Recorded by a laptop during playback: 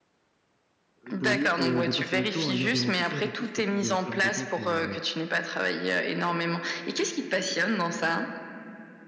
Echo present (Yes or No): Yes